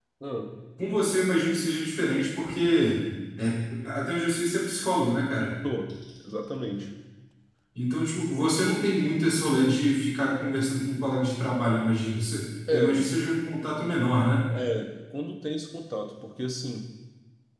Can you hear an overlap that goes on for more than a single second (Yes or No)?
No